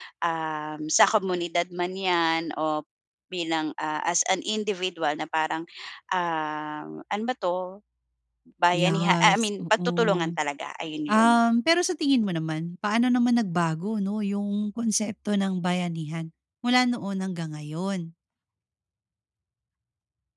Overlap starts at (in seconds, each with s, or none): 8.7 s